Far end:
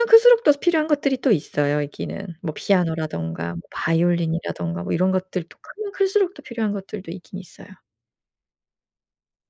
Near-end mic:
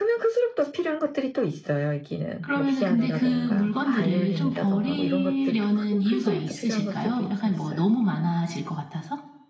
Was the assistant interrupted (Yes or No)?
Yes